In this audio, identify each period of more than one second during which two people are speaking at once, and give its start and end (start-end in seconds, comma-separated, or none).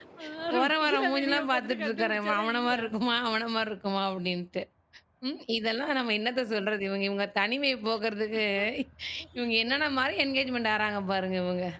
0.5-2.8